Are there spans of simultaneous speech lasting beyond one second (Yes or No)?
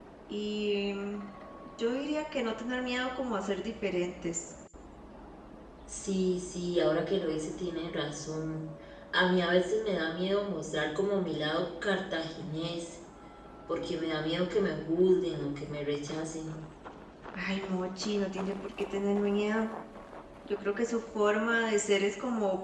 No